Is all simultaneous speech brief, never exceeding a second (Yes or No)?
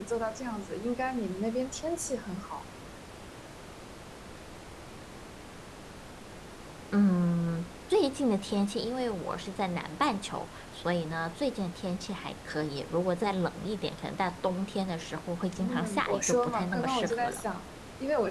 No